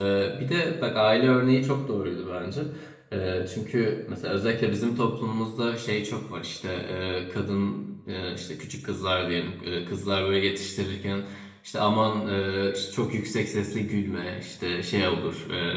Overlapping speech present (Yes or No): No